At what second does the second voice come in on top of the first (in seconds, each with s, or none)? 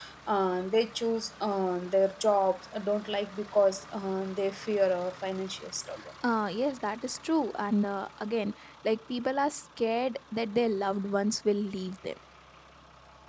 none